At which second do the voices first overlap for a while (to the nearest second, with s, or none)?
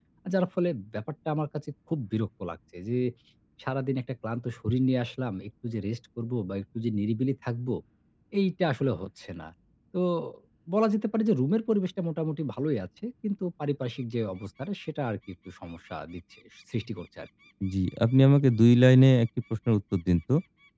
none